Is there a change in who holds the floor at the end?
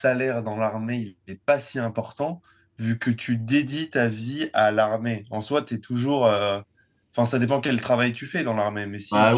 Yes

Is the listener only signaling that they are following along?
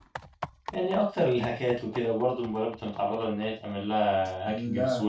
No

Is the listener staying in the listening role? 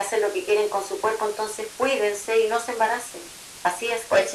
No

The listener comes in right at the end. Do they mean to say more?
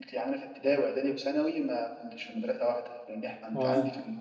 No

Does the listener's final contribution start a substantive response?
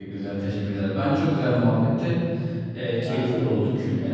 No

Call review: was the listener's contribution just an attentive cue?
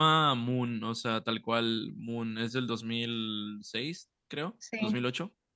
Yes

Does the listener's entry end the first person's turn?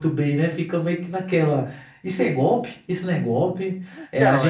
No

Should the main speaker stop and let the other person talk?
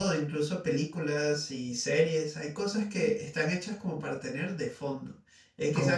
No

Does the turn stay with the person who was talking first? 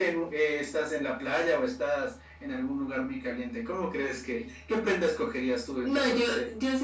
No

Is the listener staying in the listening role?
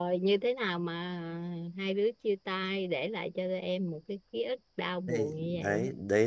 No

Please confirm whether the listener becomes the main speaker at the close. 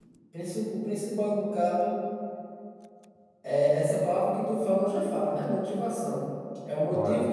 No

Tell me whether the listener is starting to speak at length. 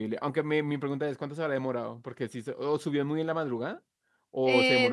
Yes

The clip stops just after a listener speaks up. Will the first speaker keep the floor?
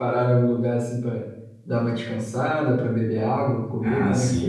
No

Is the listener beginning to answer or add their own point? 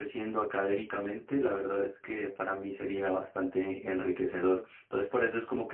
No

